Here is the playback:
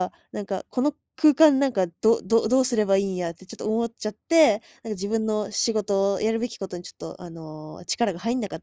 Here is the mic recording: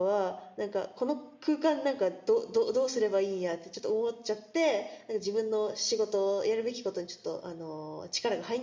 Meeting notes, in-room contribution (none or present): none